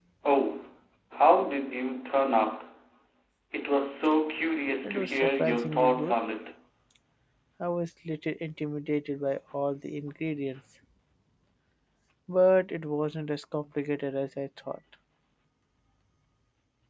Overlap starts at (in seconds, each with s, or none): 4.8 s